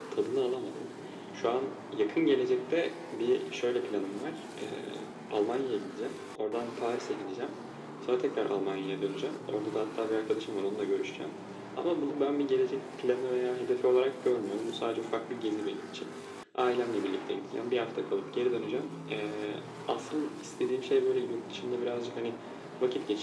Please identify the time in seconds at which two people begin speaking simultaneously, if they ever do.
none

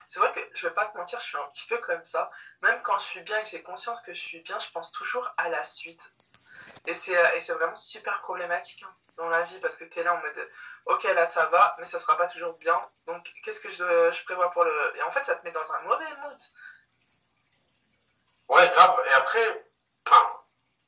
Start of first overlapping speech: none

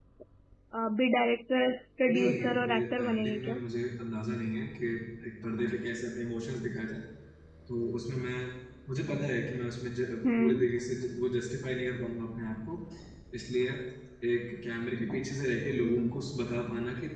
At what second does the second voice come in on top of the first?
2 s

